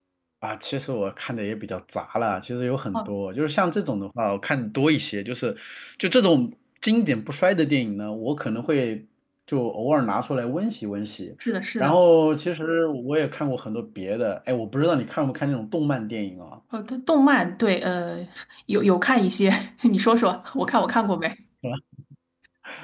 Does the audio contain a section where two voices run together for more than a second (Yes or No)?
No